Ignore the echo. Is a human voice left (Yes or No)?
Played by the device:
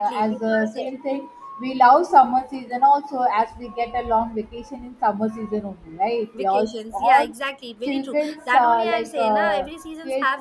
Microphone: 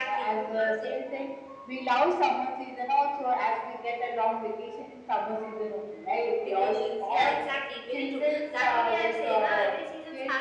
No